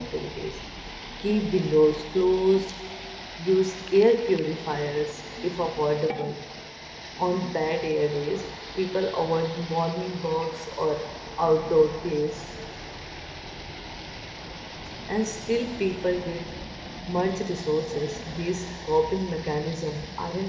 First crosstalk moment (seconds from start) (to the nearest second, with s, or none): none